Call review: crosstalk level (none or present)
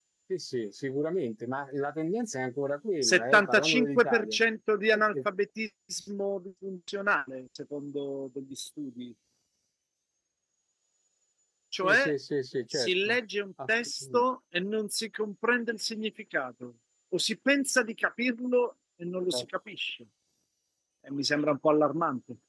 present